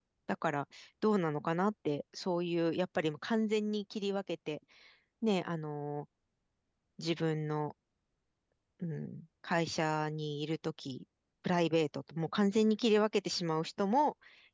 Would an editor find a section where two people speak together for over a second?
No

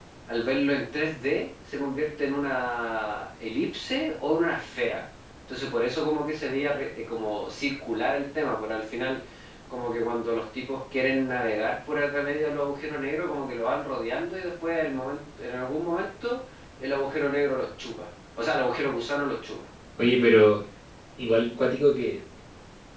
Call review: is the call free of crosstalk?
Yes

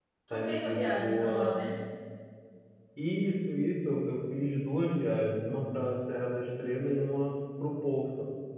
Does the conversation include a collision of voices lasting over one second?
Yes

